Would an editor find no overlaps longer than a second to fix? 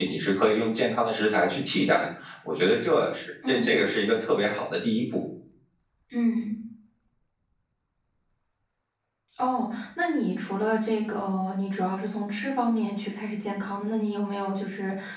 Yes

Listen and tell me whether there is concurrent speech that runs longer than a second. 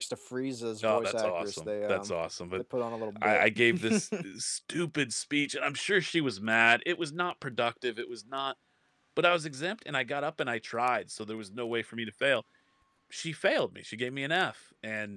Yes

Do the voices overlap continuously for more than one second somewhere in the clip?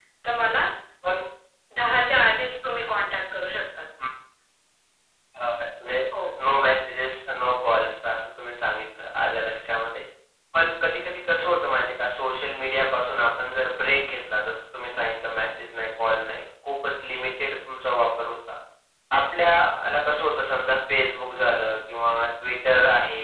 No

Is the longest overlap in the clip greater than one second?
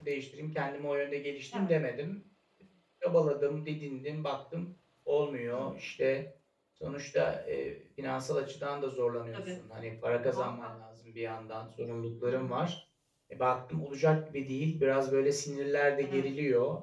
No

